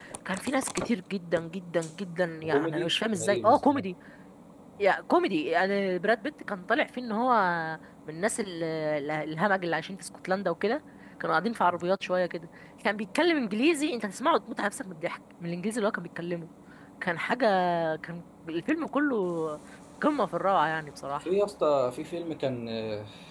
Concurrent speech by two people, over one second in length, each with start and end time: 2.4-3.9

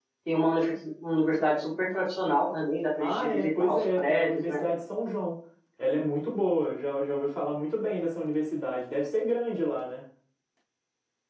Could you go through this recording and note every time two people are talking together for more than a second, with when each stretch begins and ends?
3.0-4.6

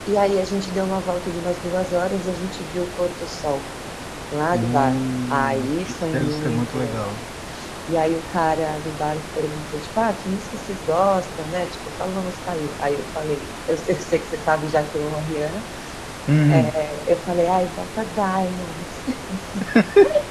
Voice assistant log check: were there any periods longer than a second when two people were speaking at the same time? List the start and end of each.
4.5-7.1

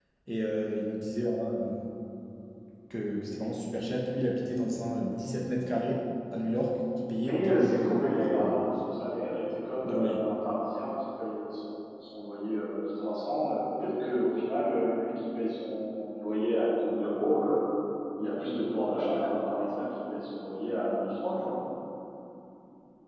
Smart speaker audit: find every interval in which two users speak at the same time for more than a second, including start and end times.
7.2-8.6

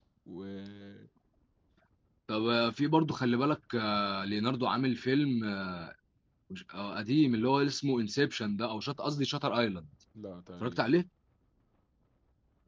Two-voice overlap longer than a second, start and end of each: none

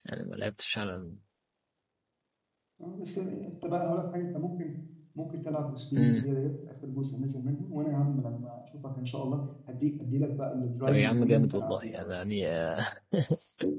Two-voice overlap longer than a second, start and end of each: 10.8-12.1

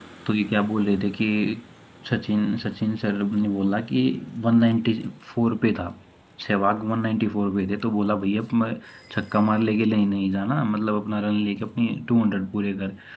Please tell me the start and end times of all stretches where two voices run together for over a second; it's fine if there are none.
none

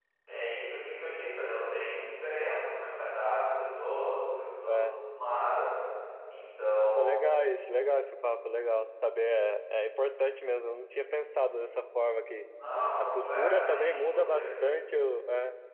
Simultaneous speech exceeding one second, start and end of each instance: 13.0-14.5

